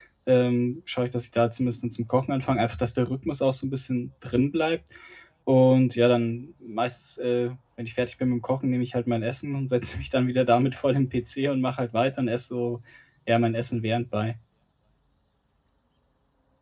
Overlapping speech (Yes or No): No